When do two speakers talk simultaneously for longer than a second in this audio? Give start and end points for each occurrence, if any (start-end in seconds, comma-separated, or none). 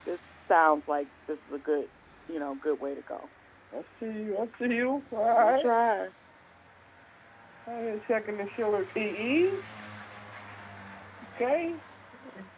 none